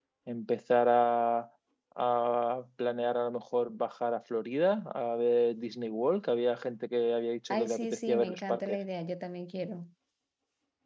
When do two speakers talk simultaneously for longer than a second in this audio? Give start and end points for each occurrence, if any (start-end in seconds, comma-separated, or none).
7.5-8.8